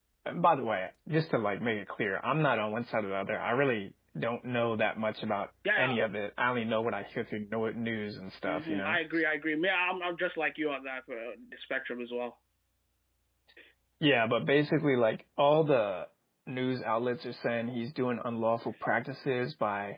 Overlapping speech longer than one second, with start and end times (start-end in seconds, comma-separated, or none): none